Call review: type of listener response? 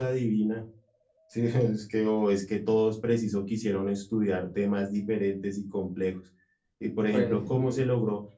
listening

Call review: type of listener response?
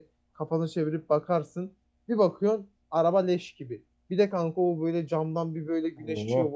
listening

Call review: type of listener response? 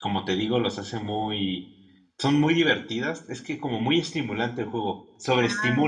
taking over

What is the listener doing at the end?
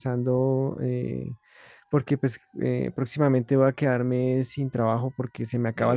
listening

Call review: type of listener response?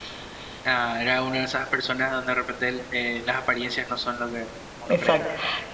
taking over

